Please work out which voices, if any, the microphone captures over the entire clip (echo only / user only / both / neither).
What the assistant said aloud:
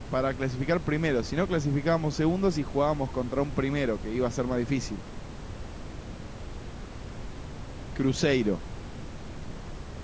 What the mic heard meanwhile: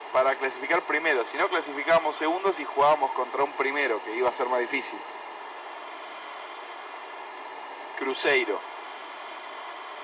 echo only